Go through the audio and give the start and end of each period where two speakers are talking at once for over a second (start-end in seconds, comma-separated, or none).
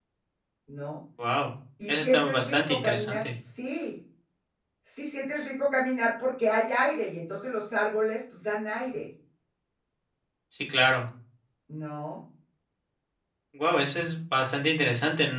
1.9-3.2